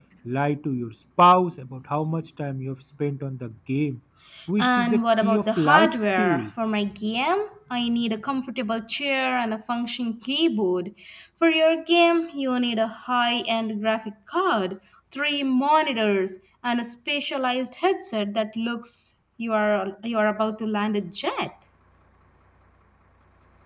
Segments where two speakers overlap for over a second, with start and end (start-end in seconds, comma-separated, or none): 4.6-6.5